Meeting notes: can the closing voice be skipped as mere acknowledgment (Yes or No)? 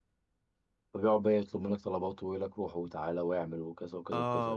No